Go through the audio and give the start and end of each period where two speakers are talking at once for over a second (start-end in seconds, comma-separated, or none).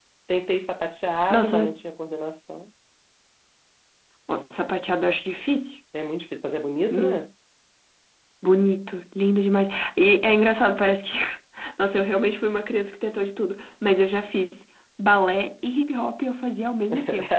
none